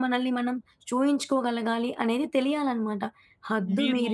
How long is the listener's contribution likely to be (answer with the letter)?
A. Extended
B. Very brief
B